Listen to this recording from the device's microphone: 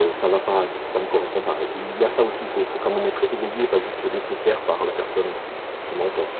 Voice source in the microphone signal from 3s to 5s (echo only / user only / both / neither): echo only